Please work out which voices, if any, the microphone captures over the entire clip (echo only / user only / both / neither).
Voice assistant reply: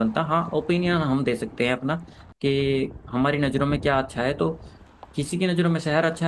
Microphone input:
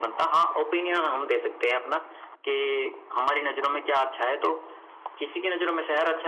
echo only